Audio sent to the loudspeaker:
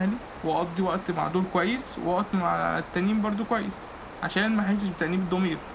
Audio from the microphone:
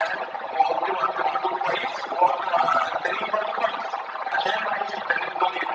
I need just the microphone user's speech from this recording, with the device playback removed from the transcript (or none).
none